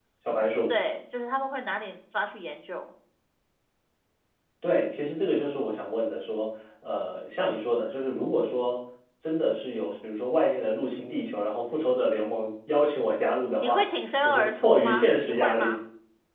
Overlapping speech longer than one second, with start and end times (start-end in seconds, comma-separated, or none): 14.2-15.8